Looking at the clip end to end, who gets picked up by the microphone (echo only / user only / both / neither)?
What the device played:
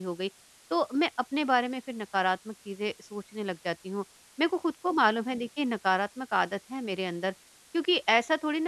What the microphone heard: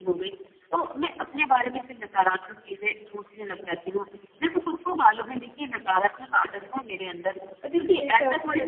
both